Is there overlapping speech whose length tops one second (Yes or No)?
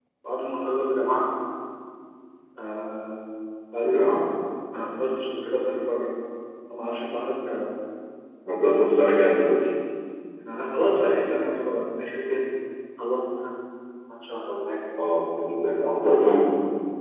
No